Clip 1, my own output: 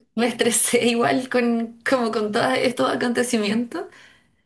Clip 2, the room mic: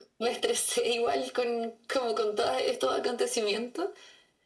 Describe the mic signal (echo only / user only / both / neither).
echo only